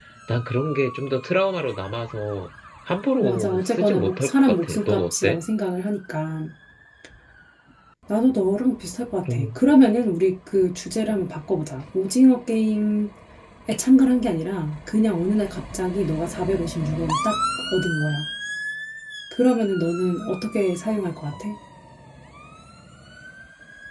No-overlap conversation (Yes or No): No